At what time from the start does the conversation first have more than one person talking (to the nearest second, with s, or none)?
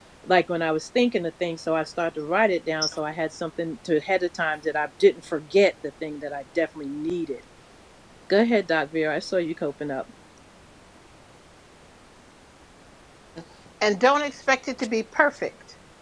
none